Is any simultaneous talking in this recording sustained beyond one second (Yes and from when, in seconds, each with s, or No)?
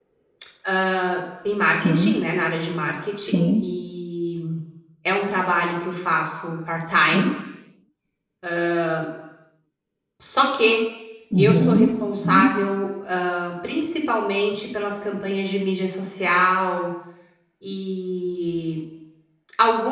No